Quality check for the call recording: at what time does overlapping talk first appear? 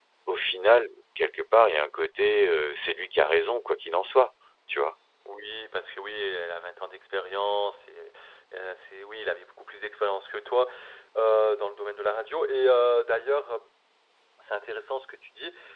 none

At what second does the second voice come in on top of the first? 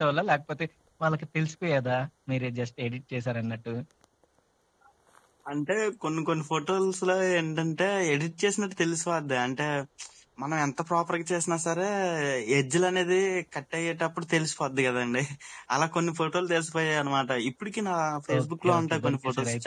18.3 s

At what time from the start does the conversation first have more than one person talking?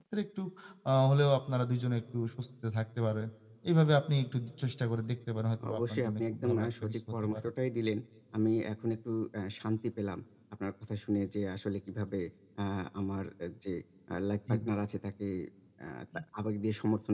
5.6 s

